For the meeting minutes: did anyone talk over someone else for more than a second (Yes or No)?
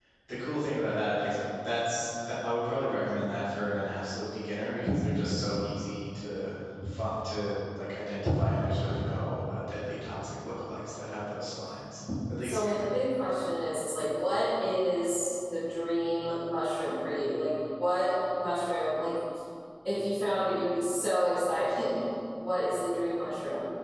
No